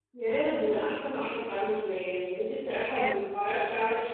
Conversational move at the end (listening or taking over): listening